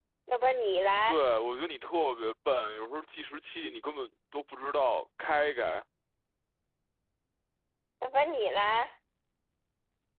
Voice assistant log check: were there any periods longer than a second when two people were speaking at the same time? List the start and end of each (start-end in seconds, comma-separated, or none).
none